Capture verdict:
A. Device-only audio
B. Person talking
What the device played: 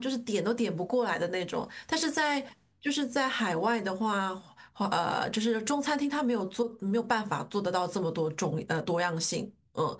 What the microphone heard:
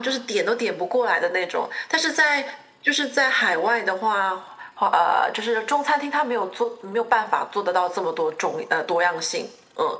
A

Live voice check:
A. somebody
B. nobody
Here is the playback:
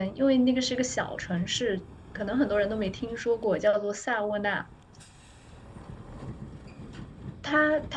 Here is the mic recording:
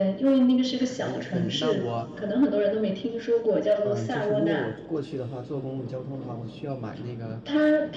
A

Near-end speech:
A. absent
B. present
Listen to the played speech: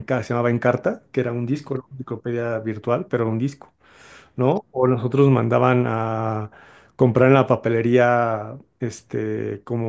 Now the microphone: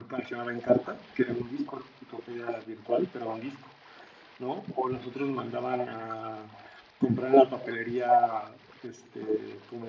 A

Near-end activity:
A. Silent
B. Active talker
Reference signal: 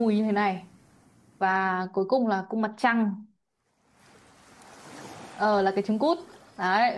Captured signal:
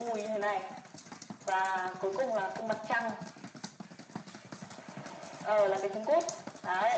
A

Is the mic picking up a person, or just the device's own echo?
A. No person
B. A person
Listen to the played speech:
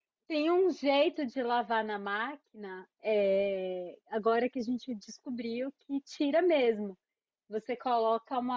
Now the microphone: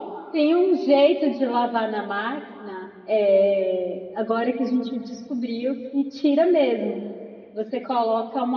A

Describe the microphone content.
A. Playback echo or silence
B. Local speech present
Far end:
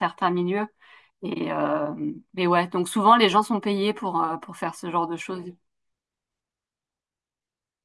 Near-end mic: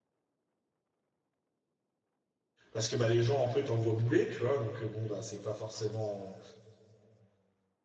B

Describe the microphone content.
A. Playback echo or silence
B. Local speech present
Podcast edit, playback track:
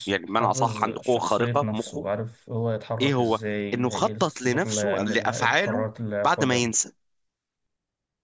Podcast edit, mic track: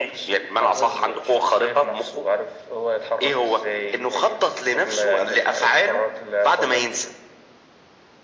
A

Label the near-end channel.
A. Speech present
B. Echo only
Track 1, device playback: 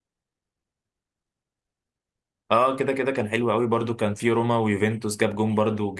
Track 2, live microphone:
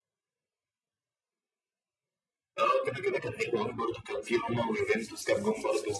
B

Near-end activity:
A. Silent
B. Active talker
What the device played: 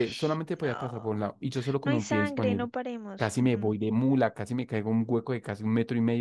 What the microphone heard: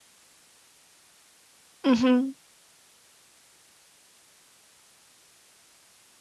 B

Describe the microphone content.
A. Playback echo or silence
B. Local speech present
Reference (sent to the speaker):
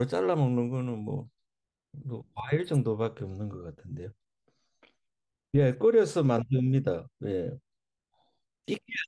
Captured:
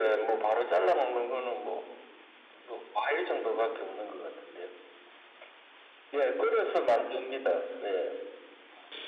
A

